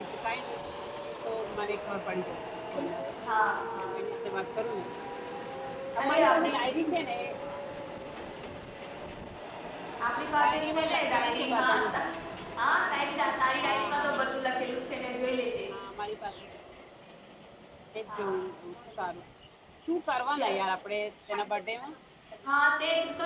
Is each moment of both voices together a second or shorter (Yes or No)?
No